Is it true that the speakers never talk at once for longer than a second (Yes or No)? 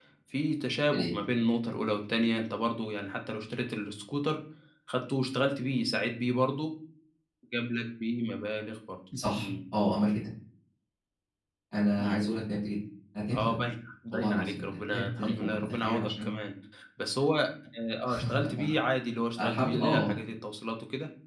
No